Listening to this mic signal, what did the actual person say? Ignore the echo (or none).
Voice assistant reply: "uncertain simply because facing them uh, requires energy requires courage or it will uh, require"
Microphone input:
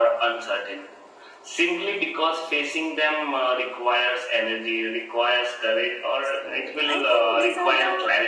so i think these are the